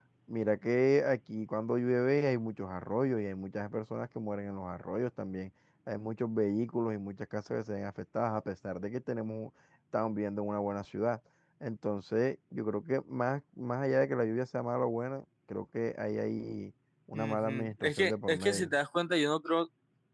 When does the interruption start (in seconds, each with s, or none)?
17.1 s